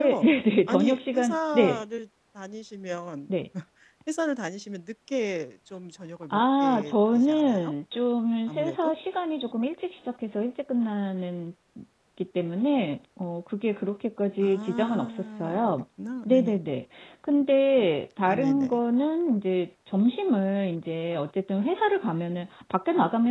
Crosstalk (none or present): present